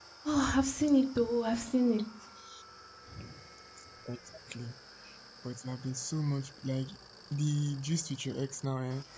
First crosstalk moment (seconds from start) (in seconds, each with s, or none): none